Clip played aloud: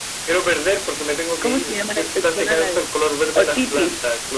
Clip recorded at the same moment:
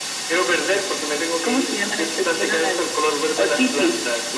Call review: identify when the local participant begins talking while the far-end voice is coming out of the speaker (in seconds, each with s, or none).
none